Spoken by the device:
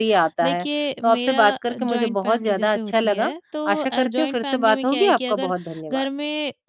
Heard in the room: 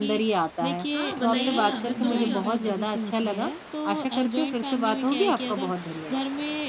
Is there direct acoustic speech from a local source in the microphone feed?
Yes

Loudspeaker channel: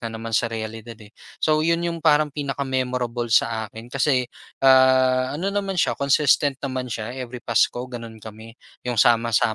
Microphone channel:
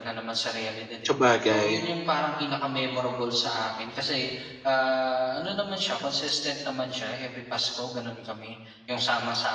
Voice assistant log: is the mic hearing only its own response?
No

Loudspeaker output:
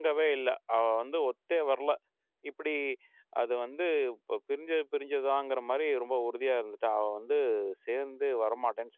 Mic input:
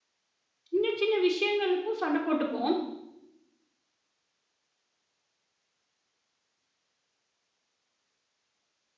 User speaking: Yes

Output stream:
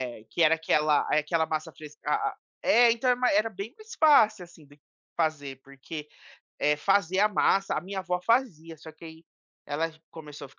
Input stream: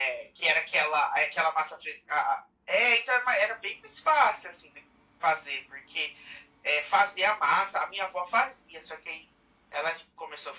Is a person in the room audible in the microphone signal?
No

